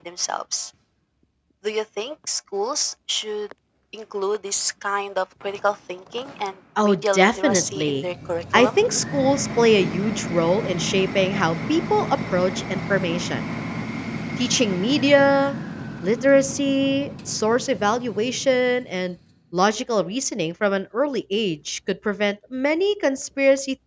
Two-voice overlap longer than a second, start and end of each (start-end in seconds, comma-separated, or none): 6.8-8.1